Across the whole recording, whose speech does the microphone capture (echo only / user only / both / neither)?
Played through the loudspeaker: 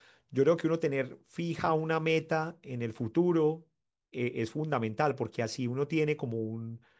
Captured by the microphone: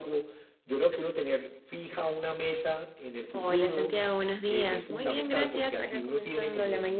both